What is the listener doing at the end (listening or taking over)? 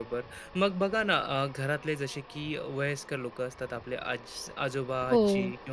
listening